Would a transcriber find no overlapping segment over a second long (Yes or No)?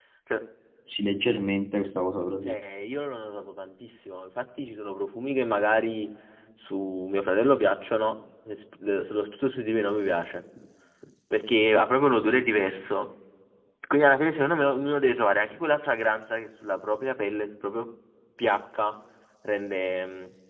Yes